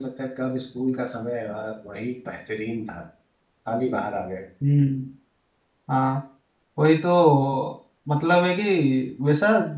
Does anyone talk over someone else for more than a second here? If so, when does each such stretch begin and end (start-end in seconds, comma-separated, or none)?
none